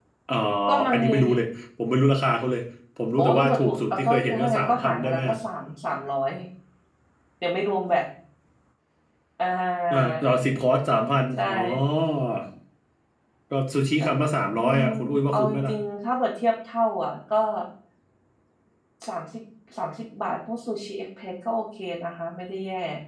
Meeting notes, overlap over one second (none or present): present